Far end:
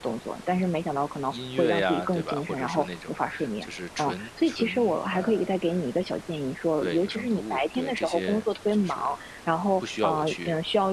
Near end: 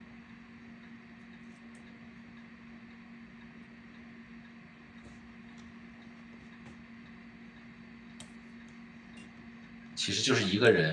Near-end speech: present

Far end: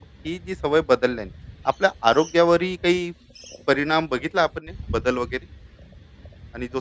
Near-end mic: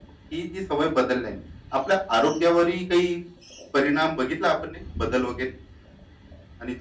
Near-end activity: none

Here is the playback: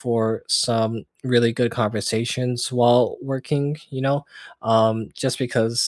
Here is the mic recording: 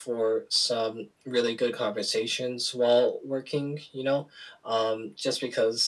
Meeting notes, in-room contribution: none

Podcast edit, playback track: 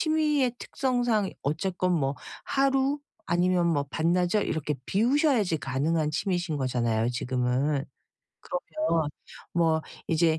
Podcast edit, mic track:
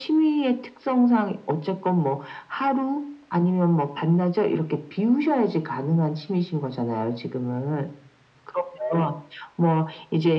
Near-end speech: none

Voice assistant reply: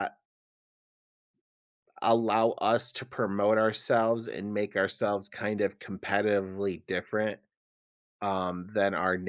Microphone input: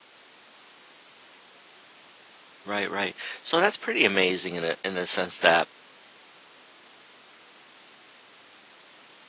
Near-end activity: present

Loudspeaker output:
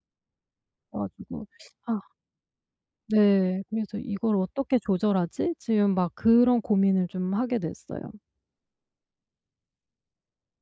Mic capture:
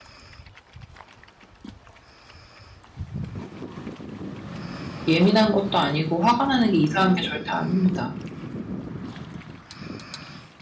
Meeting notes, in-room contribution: present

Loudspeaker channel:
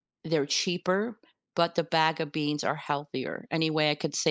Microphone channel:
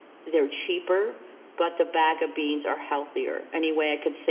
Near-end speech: none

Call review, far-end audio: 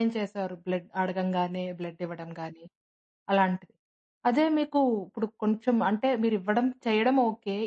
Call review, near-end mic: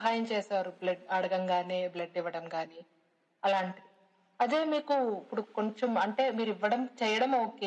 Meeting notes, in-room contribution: none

